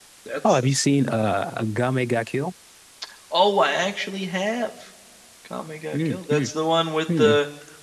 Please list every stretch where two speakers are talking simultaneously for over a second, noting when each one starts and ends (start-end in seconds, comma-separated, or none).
none